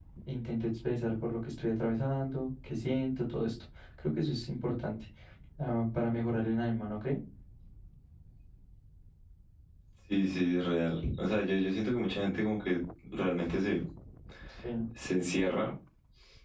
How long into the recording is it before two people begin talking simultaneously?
none

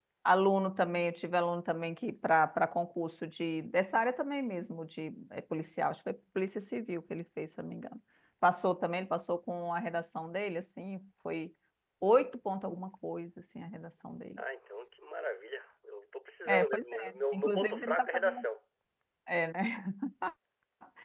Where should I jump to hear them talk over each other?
16 s

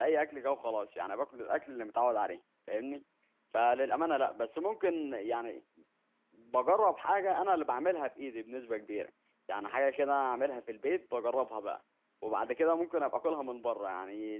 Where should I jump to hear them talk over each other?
none

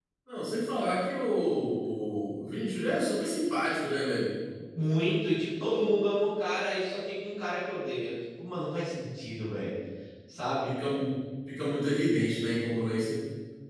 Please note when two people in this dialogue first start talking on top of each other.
none

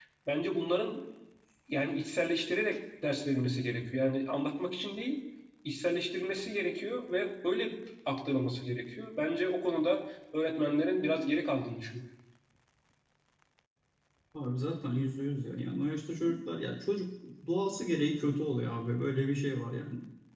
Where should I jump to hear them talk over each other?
none

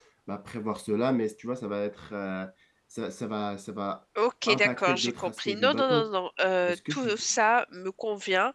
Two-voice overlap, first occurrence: 4 s

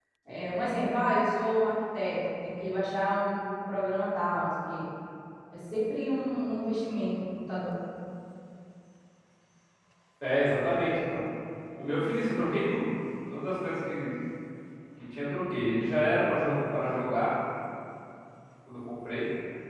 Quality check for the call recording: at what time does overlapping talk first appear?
none

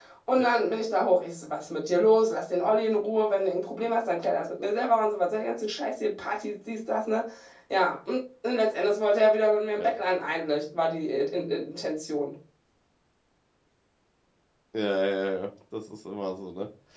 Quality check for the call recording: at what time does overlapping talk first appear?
none

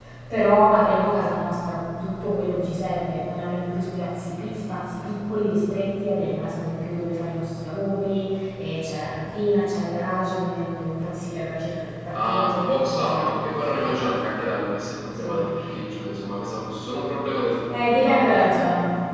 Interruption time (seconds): 12 s

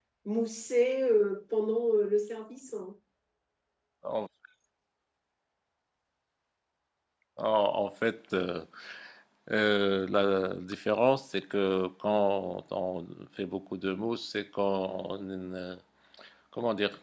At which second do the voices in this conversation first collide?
none

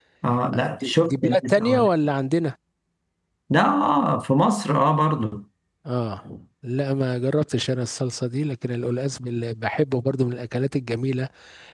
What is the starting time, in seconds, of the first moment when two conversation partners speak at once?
1 s

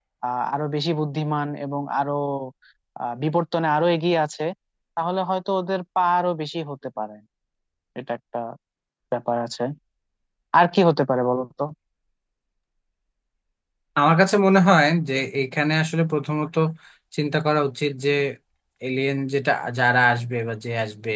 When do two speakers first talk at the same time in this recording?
none

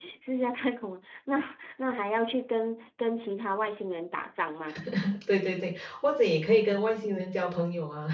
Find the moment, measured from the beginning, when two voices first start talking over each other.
none

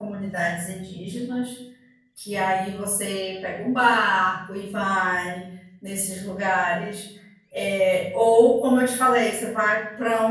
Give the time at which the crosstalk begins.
none

